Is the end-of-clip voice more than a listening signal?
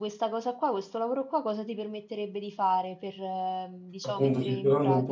Yes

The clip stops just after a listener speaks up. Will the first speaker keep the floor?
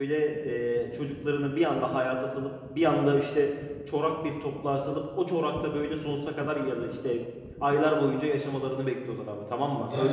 No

